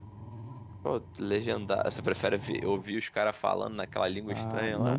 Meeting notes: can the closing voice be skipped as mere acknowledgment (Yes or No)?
No